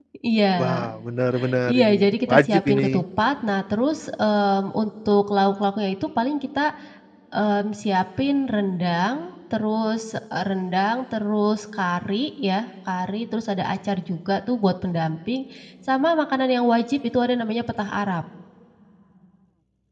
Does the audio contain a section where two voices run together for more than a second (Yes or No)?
Yes